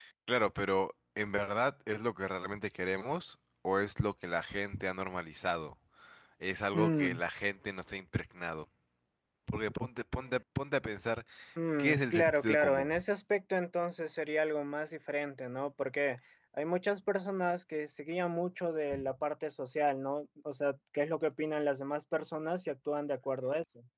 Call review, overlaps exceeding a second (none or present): present